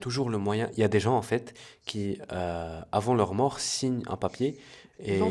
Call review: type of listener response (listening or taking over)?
taking over